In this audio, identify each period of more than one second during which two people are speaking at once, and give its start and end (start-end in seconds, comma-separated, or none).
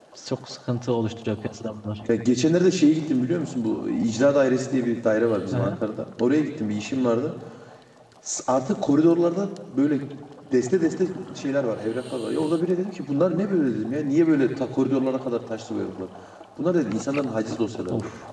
none